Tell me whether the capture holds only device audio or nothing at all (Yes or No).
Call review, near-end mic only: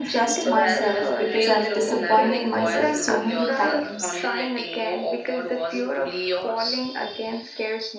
No